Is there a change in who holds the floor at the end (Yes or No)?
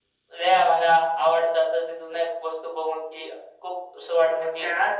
Yes